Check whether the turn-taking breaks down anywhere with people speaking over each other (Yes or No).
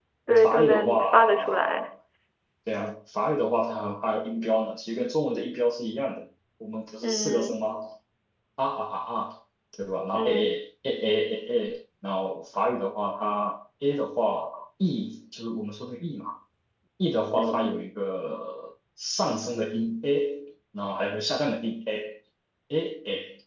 Yes